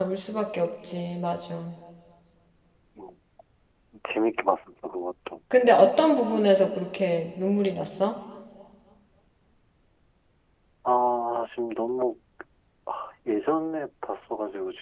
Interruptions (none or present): none